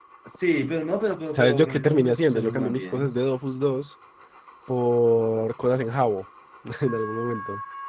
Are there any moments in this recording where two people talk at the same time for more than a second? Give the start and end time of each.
1.3-3.0

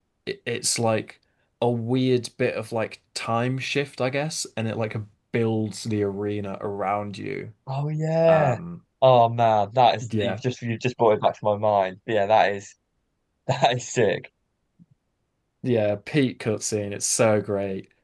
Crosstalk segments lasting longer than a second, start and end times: none

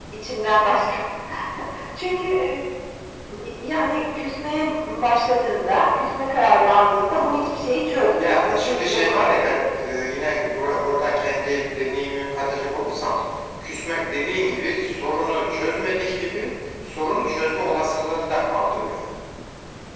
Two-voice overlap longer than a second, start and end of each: 8.2-9.6

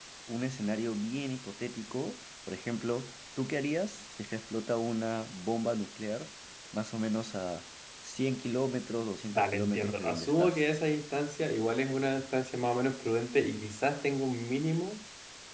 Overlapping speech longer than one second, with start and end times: 9.3-10.6

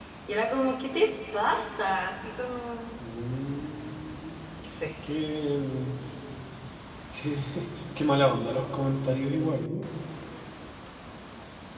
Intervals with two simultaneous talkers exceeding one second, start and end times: none

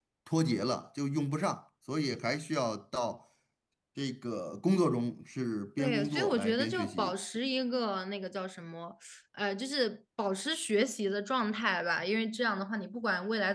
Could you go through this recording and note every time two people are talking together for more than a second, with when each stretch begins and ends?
5.8-7.1

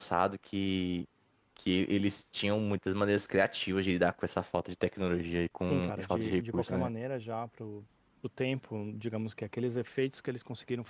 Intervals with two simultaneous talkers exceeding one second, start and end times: 5.6-6.9

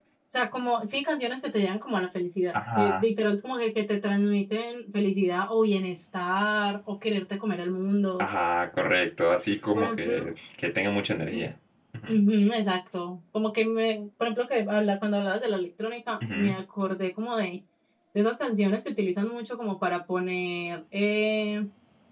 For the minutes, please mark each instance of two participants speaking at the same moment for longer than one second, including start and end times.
none

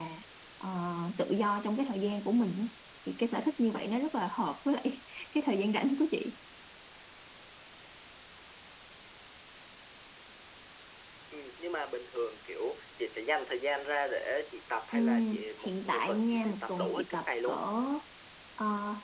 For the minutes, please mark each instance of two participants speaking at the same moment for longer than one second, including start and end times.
14.9-17.6

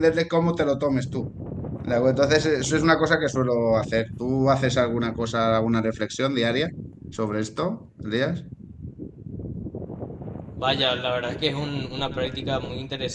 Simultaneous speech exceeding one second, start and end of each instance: none

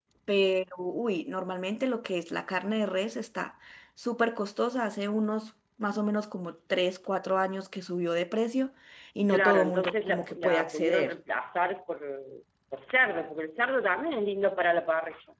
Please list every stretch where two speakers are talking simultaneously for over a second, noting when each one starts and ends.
9.3-11.2

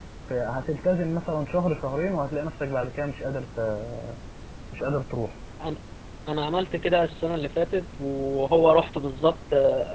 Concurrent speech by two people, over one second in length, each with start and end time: none

